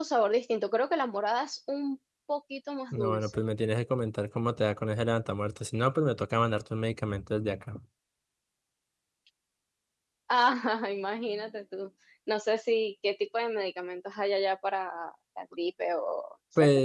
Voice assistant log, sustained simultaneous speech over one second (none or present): none